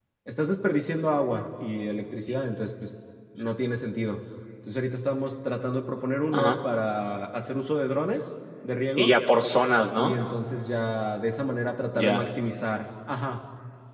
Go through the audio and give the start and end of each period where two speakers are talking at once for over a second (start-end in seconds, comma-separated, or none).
none